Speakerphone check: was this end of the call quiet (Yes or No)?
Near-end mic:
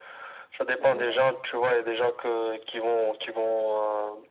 No